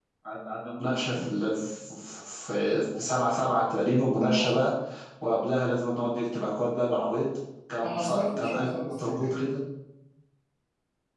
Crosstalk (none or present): present